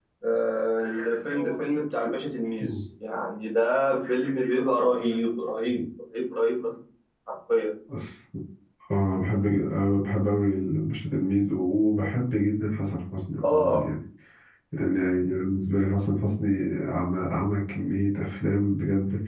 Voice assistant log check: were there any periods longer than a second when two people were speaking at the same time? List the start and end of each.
none

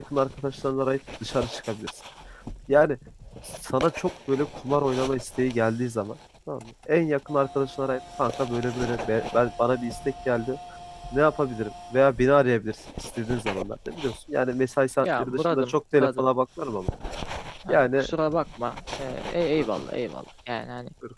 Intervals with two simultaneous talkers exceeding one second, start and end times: 15.0-16.3

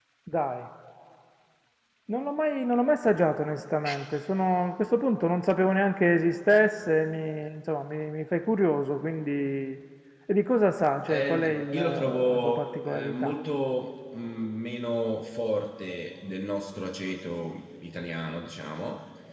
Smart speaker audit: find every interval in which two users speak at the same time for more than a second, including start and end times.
11.0-13.3

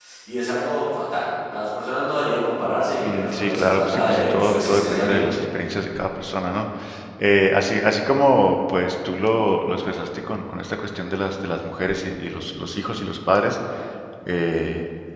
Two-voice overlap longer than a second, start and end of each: 3.1-5.3

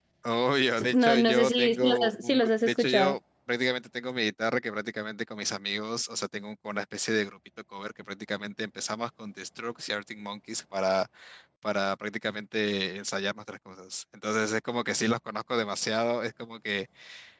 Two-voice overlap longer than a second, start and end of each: 0.9-3.2

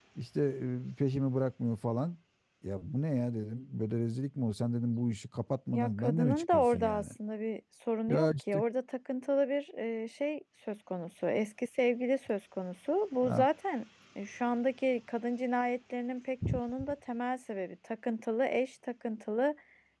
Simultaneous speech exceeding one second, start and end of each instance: 5.7-7.1

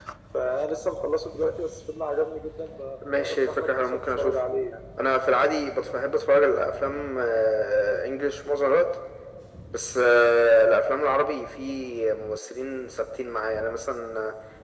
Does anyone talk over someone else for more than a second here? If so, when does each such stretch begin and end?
3.2-4.4

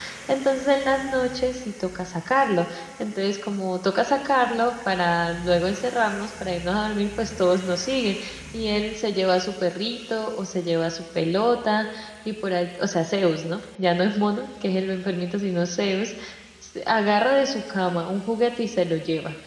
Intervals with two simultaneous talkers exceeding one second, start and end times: none

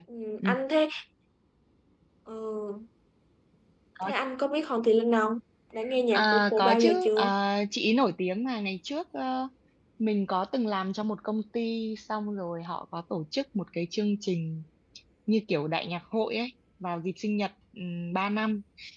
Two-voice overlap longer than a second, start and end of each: 6.1-7.3

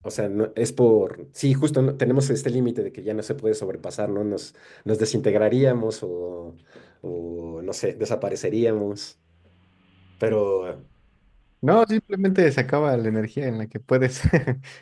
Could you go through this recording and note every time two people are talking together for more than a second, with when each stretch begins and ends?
none

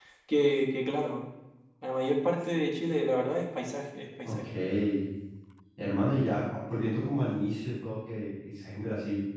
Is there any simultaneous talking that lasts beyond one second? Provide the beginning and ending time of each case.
none

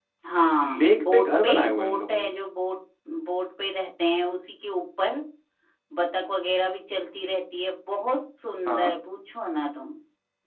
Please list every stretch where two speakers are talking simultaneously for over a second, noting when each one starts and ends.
0.6-2.3

